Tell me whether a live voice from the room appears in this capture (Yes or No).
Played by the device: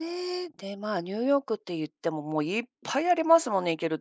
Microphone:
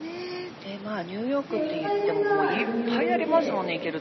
Yes